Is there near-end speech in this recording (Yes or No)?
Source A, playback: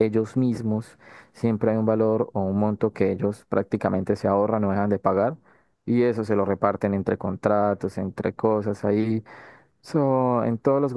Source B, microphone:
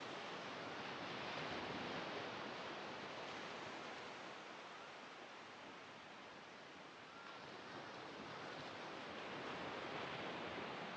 No